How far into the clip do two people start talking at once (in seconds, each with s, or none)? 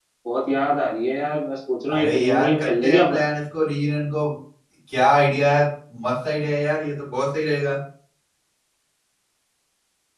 1.9 s